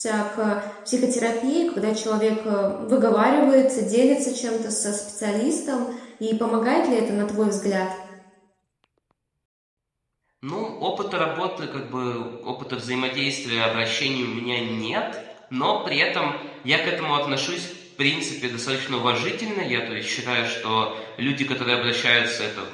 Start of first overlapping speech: none

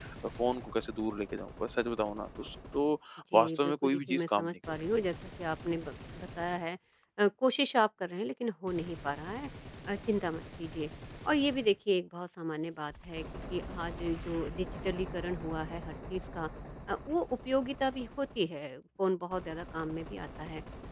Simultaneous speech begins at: 3.3 s

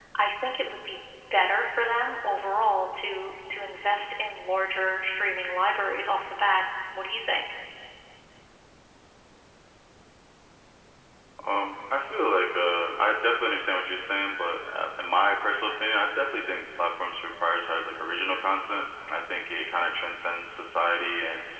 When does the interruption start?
none

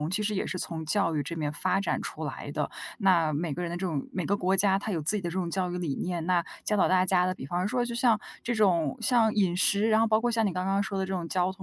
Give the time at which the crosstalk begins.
none

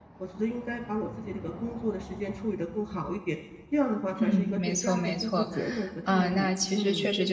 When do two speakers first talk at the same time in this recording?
4.2 s

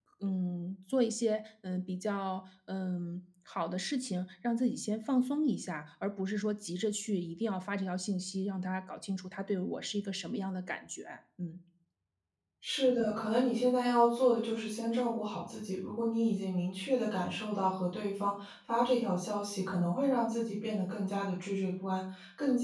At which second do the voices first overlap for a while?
none

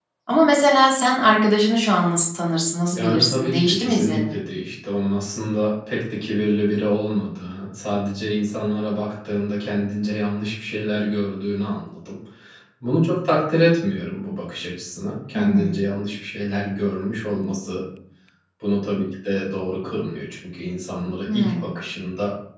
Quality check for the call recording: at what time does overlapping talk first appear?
3.0 s

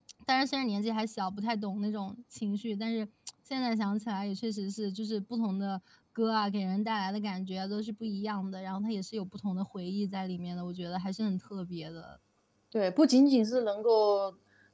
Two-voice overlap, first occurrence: none

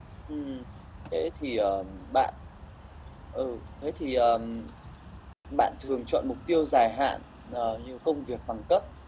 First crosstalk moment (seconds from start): none

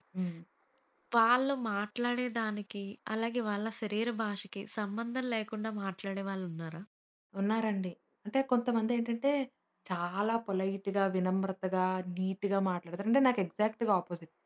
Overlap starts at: none

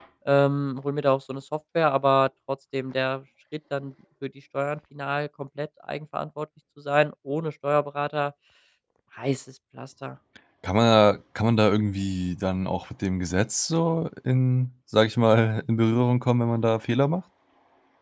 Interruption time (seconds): none

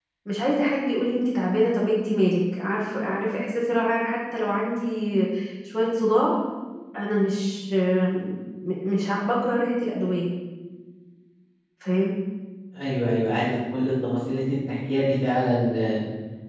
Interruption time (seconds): none

